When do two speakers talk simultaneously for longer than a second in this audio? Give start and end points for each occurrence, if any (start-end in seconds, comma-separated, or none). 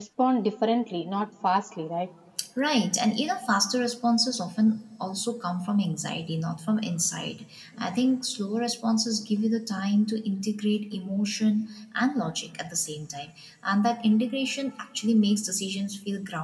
none